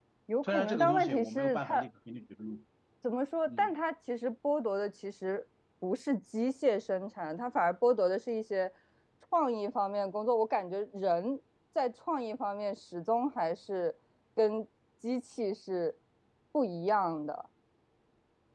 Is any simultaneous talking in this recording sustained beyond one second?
Yes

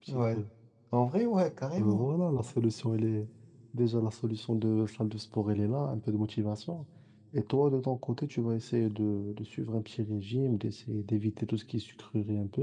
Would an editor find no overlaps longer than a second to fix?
Yes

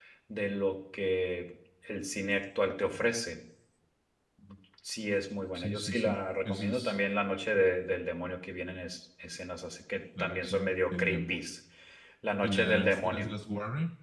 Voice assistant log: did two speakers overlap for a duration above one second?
Yes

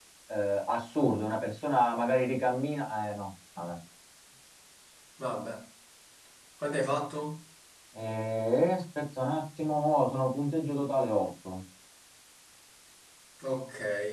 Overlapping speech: No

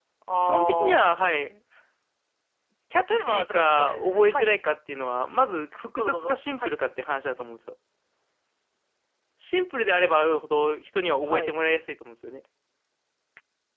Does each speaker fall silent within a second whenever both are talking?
No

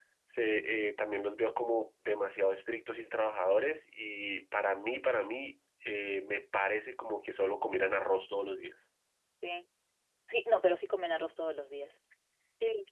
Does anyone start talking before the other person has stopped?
No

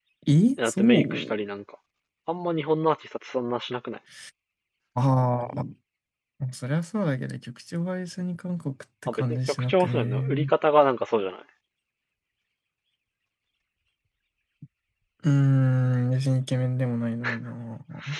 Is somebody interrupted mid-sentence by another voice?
Yes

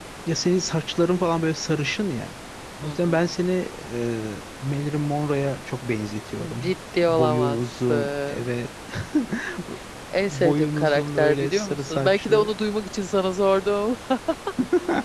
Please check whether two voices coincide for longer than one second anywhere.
Yes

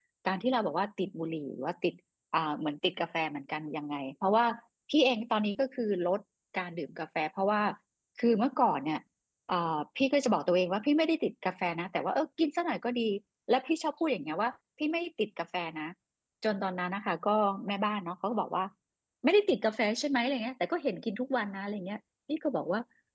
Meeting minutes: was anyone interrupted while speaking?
No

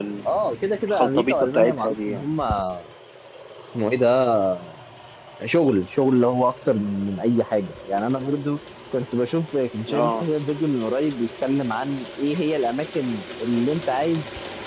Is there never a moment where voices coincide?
No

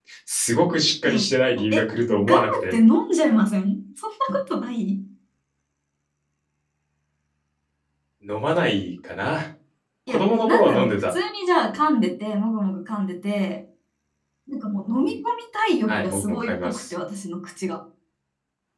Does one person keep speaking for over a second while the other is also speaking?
Yes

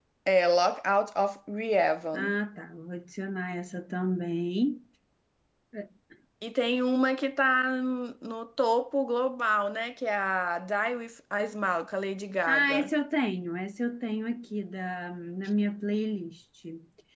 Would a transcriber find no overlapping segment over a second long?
Yes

